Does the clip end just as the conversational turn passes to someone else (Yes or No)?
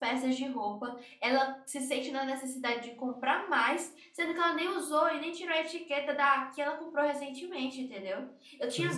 No